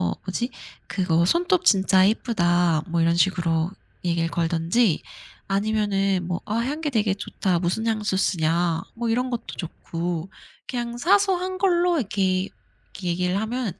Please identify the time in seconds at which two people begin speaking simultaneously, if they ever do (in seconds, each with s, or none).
none